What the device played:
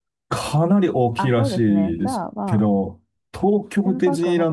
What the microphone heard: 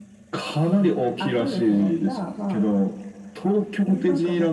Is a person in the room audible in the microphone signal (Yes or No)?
No